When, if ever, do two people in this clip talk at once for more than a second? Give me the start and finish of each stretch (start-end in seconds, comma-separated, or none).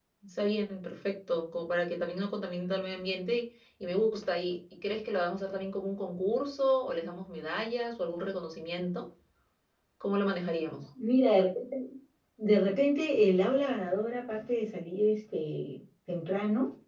none